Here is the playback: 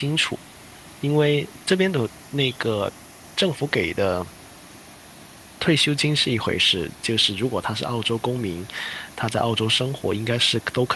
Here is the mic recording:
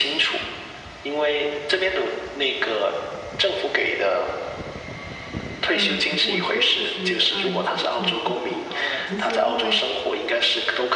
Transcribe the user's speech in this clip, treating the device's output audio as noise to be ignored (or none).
嗯，我觉得其实阿联酋性价比会更高哎，就是因为